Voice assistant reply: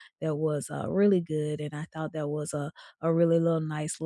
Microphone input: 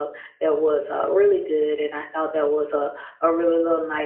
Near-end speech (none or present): none